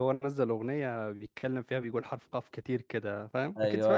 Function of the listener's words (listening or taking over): taking over